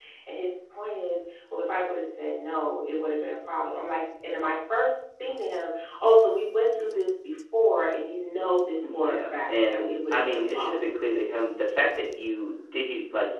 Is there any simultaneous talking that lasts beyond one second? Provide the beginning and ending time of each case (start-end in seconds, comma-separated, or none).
8.8-10.9